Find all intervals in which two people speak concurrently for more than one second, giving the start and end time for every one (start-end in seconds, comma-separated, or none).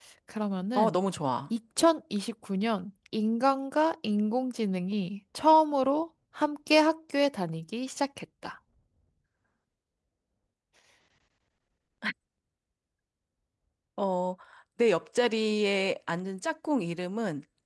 none